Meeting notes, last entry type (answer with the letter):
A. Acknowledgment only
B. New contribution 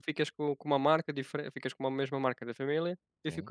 A